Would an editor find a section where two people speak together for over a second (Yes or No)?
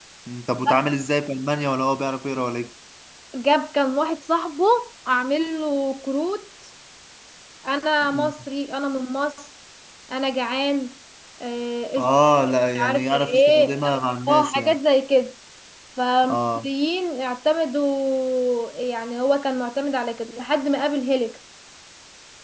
Yes